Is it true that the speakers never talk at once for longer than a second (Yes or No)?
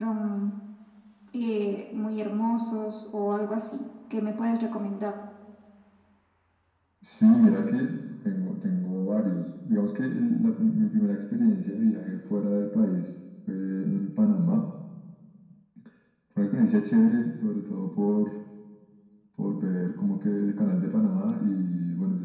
Yes